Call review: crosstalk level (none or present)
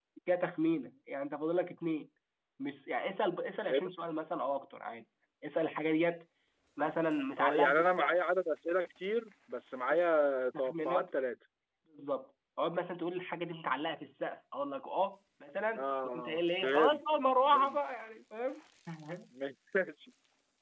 present